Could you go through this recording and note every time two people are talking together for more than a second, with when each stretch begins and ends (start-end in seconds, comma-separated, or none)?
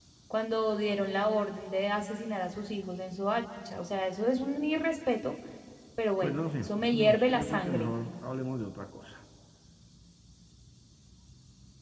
6.2-7.9